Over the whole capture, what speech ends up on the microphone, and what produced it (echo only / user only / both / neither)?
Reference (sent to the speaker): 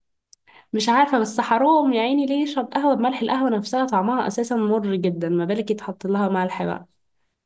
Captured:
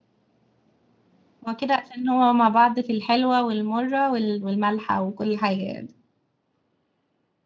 user only